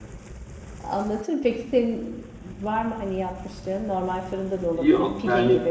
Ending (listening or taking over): taking over